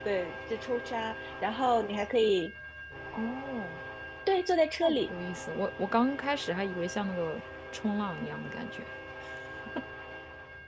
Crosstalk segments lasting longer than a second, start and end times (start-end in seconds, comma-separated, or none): none